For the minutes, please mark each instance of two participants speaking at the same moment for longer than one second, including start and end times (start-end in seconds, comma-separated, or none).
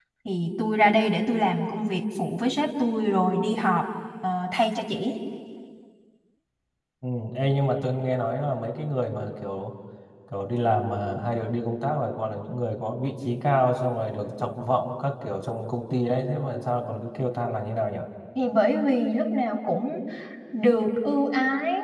none